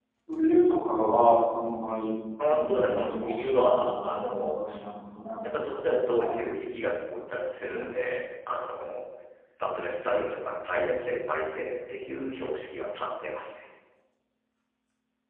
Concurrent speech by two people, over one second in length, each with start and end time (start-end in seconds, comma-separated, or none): 2.5-4.6